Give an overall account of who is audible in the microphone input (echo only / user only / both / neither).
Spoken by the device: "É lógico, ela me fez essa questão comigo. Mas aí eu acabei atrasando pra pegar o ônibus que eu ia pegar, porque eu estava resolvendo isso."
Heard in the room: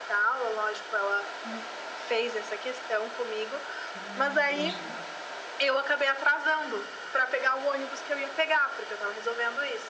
both